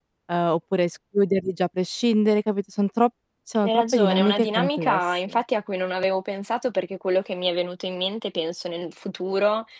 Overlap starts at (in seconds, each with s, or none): 3.6 s